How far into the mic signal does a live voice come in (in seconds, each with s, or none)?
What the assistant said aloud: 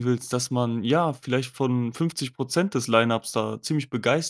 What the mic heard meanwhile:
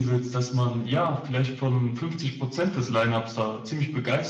none